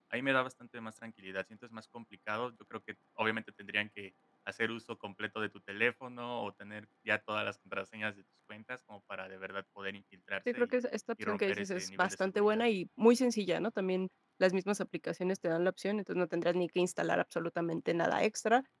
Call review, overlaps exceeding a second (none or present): present